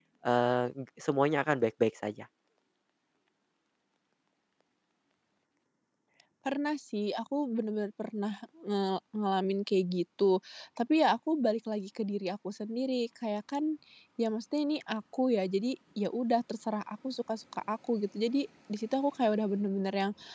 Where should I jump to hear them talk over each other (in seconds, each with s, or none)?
none